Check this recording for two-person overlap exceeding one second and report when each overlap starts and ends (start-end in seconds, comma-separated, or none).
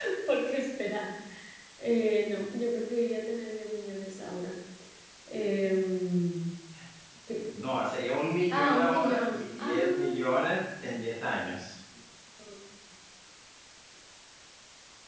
8.5-10.2